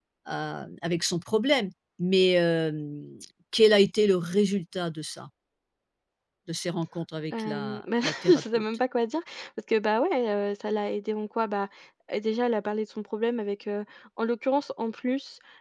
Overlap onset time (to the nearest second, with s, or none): 7 s